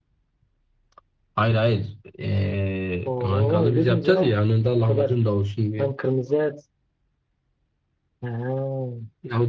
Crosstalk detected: Yes, from 3.0 s

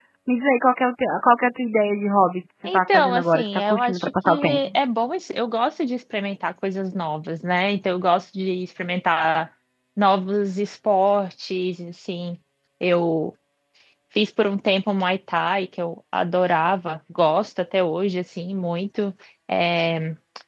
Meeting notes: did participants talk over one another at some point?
Yes, from 2.6 s

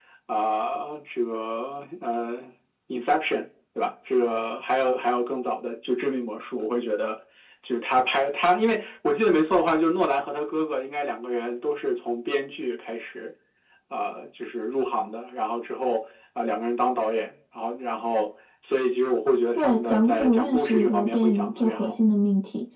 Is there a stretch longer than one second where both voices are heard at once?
Yes, from 19.5 s

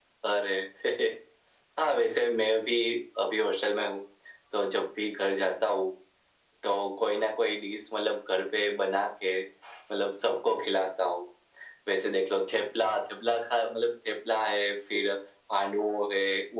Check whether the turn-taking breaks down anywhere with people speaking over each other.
No

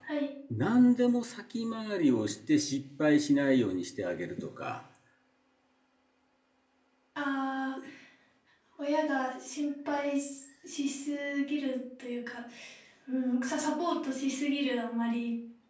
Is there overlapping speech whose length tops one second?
No

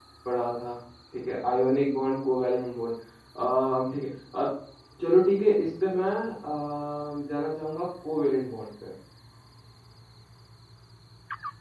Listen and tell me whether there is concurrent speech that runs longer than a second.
No

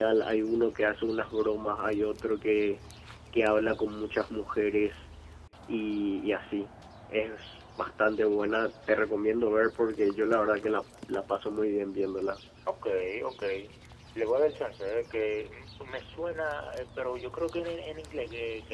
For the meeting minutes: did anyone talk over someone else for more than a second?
No

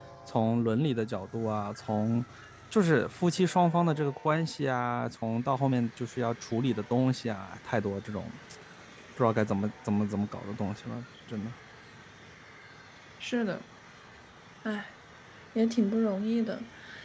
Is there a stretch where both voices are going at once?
No

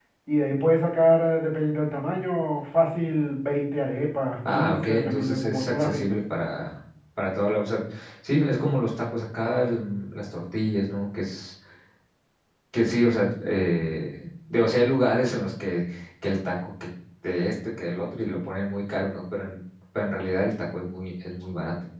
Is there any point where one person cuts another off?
Yes, from 4.4 s

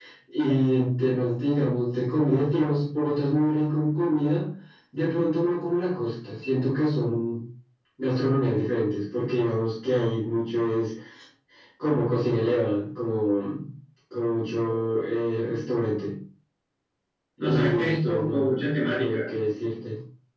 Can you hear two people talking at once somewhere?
Yes, from 17.4 s

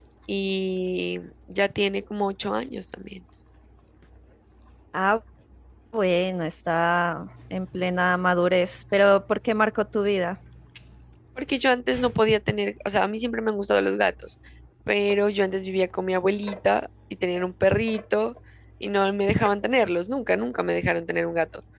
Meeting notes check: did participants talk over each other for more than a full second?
No

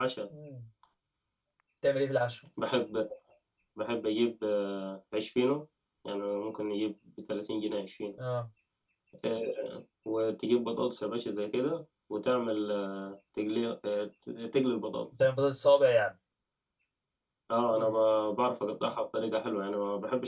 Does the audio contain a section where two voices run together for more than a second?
No

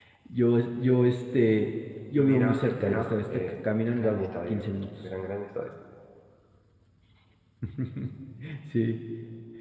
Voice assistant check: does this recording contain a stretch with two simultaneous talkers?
Yes, from 2.2 s

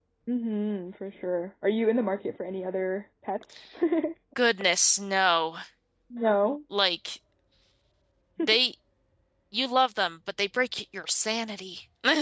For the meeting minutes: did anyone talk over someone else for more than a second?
No

